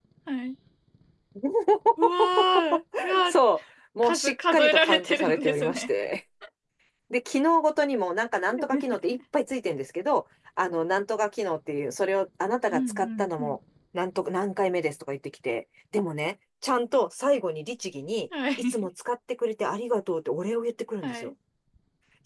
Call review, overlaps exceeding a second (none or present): present